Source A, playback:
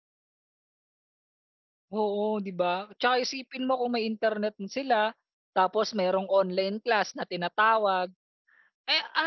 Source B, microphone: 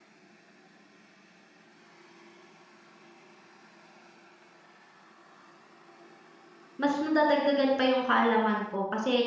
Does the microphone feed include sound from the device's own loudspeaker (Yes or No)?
No